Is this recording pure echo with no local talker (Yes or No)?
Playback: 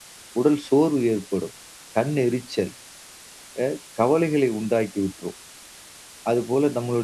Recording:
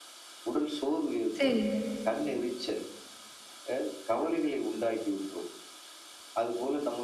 No